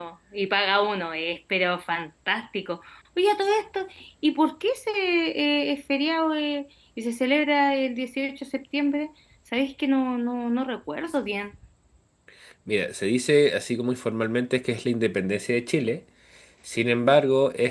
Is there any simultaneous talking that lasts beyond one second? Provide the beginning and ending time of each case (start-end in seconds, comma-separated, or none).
none